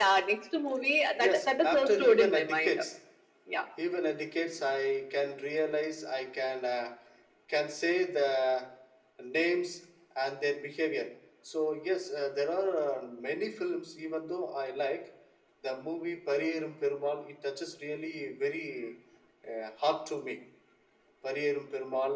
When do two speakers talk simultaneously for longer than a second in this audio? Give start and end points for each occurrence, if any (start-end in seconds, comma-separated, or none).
1.2-2.8